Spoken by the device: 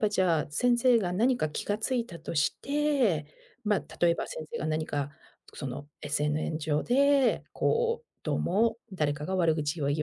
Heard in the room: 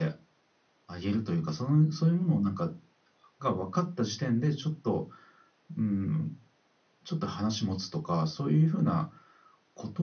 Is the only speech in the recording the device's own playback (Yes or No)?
No